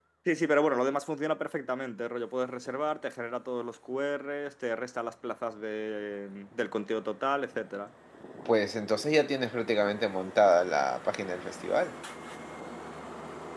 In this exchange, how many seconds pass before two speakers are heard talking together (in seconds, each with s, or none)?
none